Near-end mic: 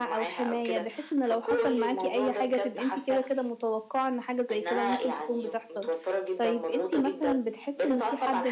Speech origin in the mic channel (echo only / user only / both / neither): both